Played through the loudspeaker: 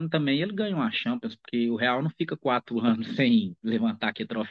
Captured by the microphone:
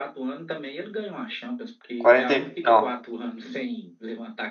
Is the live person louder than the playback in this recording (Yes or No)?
Yes